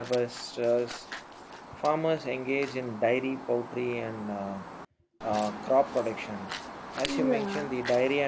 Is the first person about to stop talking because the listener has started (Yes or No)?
No